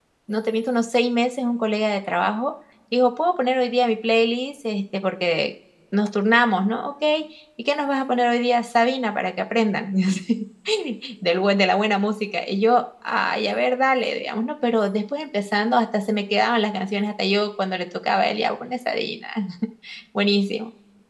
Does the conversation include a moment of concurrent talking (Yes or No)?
No